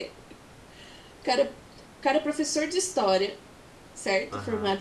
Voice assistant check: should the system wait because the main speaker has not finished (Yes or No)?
Yes